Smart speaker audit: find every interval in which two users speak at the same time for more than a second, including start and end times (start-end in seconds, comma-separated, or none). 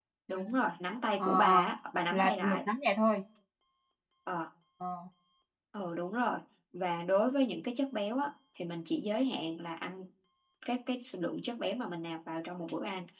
none